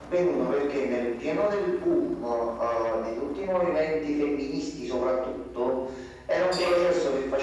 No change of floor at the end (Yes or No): Yes